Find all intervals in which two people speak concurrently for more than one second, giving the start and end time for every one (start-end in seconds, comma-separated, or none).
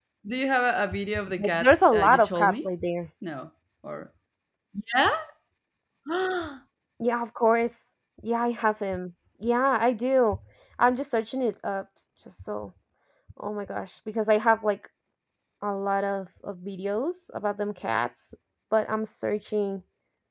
1.4-2.7